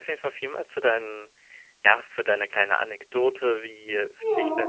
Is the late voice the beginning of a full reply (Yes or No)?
No